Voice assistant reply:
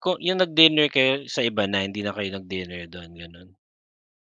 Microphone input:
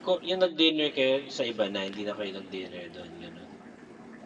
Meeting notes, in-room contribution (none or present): none